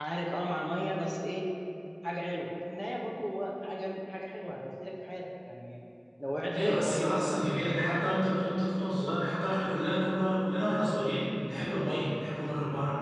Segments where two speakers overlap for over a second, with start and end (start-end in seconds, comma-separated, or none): 6.5-8.1